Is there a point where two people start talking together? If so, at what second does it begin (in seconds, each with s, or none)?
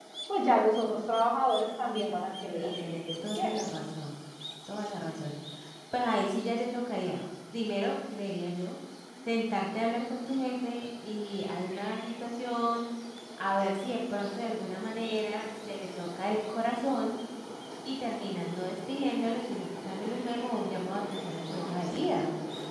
2.5 s